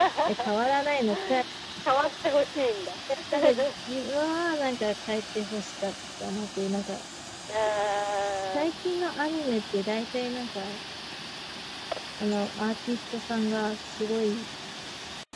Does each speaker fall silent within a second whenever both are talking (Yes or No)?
Yes